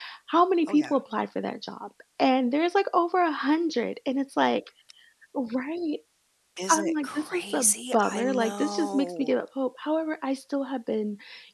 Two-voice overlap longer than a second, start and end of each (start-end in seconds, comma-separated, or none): 6.7-9.3